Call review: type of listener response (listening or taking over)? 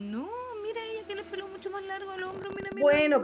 taking over